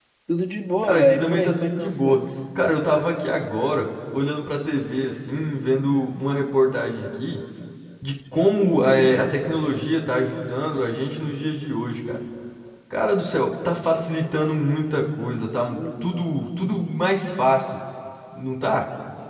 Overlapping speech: Yes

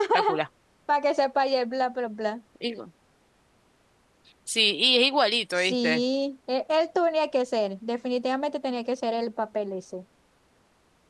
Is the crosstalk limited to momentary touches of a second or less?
Yes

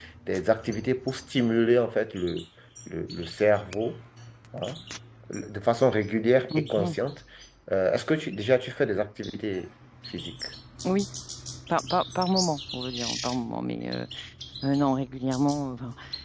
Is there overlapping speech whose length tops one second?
No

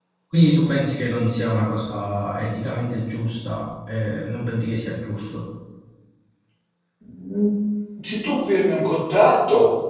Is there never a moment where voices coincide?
Yes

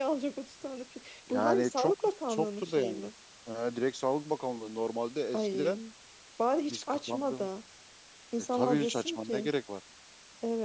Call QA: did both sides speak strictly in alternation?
No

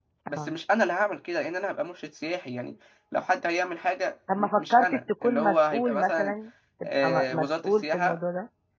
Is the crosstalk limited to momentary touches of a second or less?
No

